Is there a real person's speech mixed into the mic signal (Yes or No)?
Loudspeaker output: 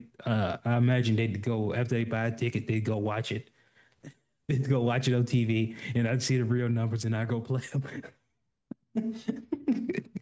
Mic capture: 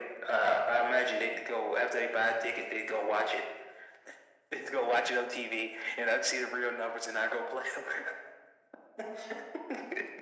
No